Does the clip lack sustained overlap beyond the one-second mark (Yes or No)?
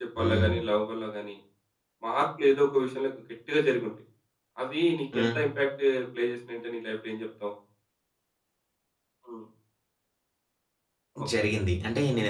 Yes